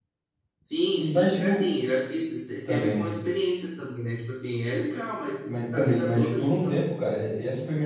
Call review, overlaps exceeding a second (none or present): present